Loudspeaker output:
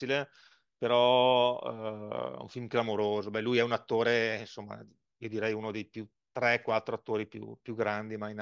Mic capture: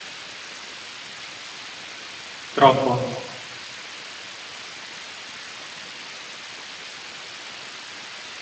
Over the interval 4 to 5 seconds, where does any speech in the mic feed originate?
neither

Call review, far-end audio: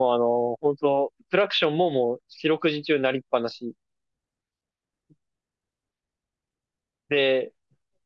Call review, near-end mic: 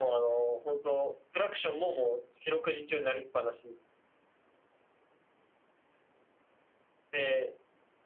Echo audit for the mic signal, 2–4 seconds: echo only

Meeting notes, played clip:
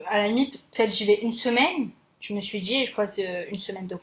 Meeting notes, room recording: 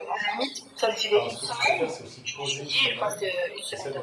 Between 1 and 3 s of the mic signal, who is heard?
both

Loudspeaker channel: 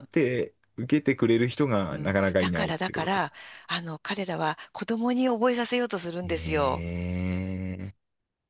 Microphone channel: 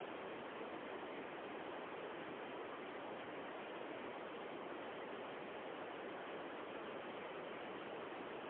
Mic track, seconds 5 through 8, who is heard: neither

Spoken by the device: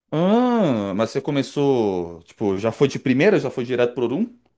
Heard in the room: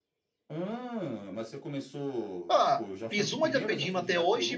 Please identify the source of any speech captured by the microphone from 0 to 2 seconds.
echo only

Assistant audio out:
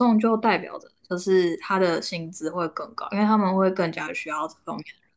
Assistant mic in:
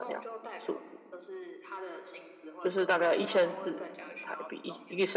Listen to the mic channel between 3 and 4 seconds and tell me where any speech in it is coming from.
both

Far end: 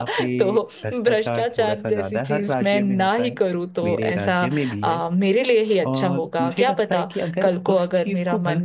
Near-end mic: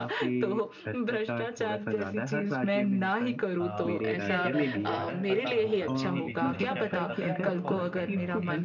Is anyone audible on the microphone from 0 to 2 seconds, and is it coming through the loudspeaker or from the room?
echo only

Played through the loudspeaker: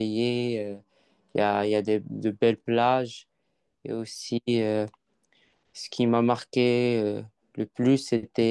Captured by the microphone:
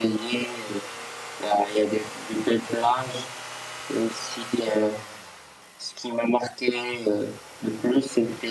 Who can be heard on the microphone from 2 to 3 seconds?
echo only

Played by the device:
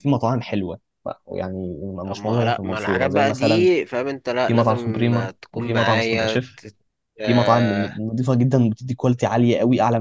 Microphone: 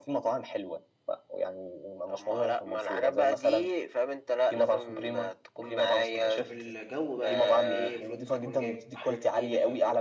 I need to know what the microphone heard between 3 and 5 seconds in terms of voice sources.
echo only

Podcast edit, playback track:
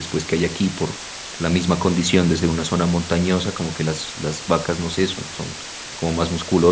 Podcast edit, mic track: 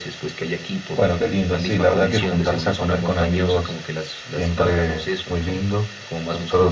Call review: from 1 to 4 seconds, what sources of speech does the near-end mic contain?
both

